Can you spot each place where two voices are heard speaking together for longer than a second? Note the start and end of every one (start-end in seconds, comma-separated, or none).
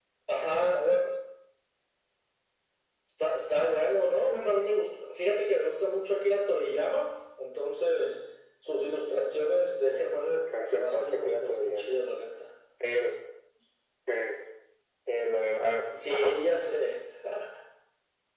9.8-12.0